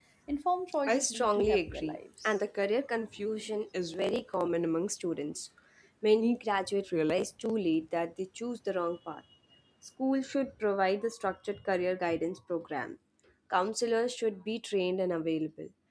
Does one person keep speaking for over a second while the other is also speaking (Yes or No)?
Yes